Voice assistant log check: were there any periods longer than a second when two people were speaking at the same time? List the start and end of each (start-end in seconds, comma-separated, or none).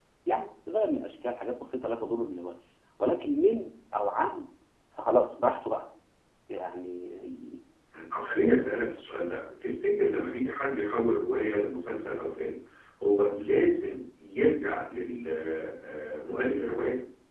none